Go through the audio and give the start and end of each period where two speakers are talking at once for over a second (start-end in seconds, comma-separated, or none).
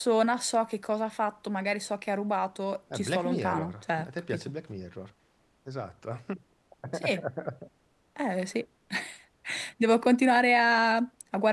2.9-4.5